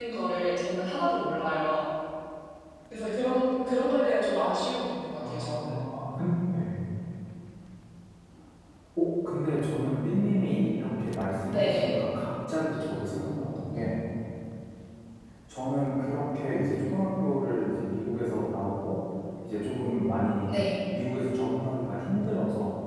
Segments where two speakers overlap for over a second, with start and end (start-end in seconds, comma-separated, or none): none